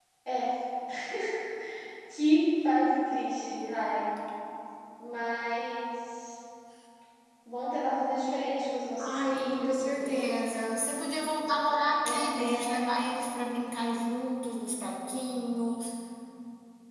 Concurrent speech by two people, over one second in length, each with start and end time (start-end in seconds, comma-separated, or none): 9.0-10.6